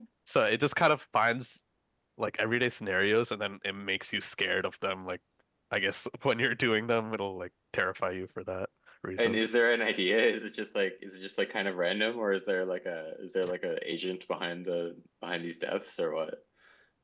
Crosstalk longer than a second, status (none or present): none